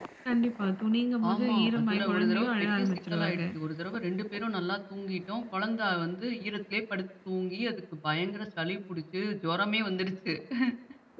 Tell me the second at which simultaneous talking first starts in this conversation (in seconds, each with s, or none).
1.2 s